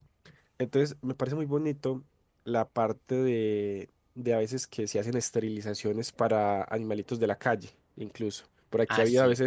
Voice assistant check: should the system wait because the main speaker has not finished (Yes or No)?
Yes